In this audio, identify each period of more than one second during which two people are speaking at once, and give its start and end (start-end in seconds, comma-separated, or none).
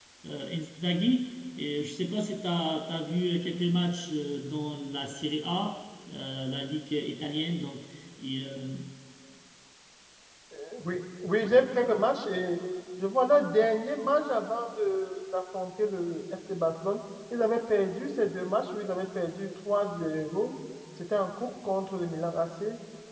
none